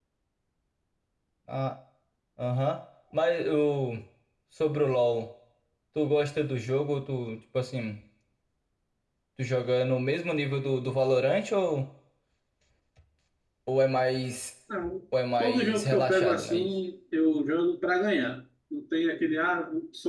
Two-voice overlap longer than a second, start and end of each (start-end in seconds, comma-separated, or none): 15.4-16.7